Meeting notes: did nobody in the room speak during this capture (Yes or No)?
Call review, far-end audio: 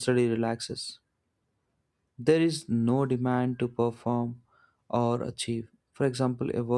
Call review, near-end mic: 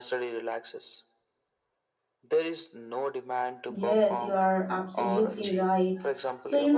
No